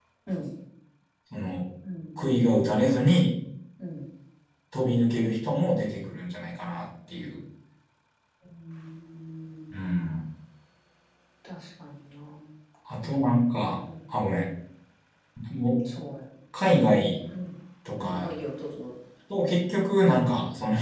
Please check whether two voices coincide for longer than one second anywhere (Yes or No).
No